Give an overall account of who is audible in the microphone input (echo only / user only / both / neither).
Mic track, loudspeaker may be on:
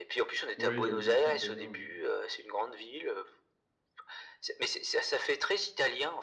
both